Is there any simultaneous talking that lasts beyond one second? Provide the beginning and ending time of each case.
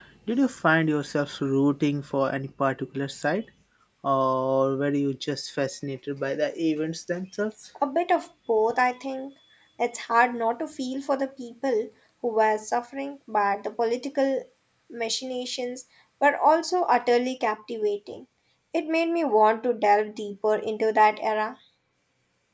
none

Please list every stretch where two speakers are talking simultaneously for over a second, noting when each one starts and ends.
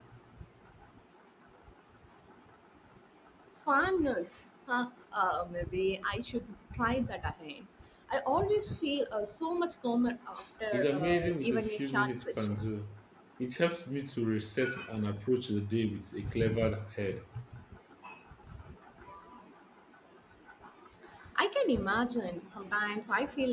10.7-12.6

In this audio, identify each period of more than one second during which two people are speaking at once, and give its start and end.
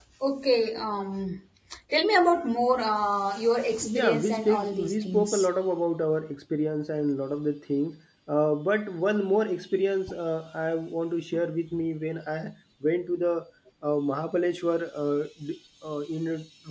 3.8-5.5

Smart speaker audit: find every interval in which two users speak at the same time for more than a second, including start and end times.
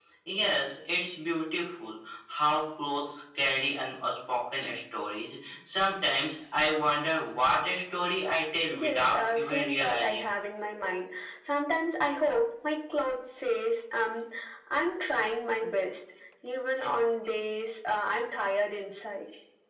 8.8-10.3

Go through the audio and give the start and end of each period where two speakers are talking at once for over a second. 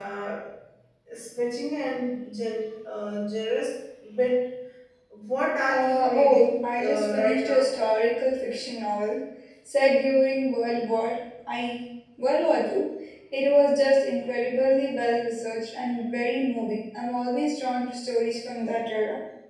5.7-7.7

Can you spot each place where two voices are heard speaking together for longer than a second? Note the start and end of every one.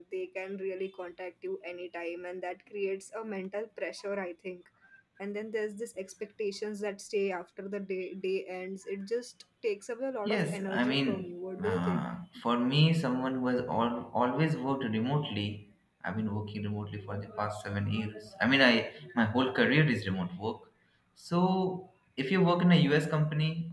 10.2-12.0

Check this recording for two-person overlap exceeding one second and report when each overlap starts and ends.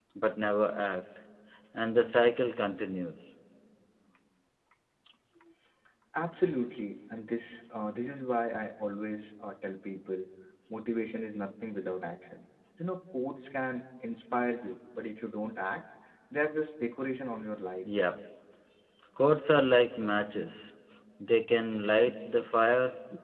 none

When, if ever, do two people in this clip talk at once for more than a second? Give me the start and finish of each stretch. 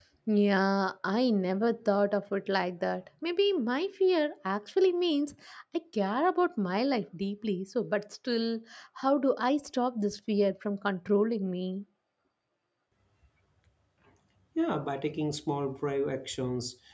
none

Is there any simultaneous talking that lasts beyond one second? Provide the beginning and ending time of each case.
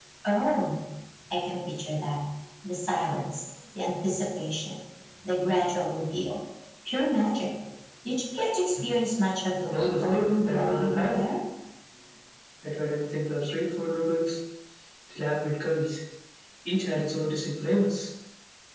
9.7-11.2

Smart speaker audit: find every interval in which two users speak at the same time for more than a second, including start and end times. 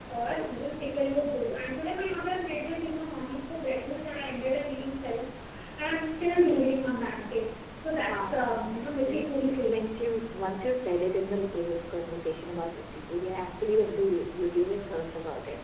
8.0-9.8

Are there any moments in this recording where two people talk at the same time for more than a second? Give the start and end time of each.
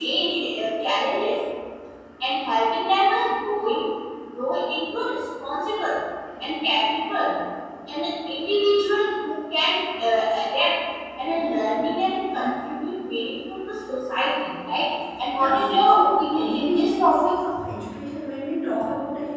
15.3-17.3

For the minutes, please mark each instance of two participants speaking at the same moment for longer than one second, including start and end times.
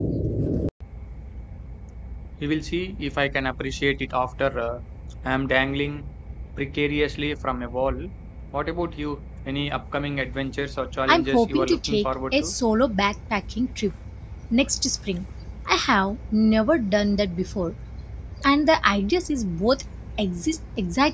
11.1-12.5

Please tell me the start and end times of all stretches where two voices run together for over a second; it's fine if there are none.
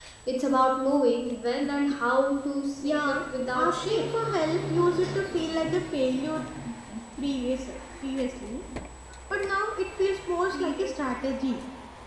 2.8-4.0

